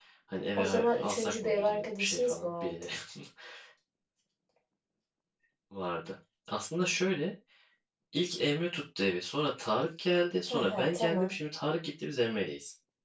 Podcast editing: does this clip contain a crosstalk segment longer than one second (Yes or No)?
Yes